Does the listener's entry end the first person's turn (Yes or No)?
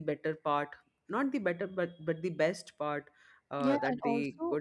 Yes